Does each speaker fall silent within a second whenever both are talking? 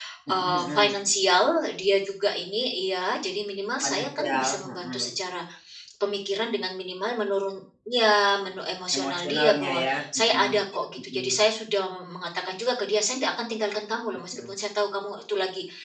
No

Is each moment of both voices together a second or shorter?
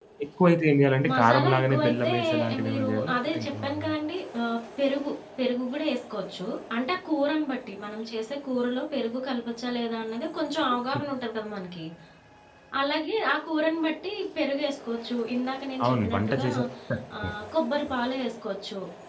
No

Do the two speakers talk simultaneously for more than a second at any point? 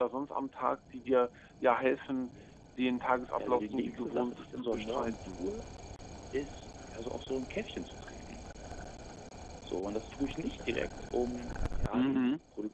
Yes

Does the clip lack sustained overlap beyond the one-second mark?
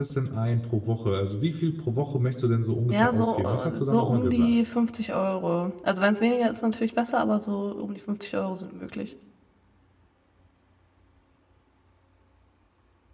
No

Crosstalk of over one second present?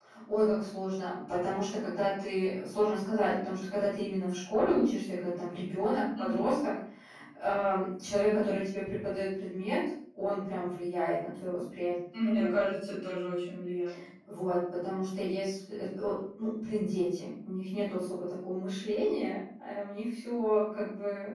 No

